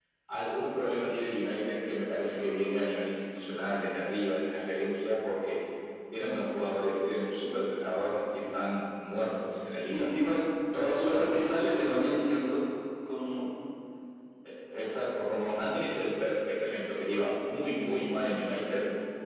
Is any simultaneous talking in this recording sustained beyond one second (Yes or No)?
No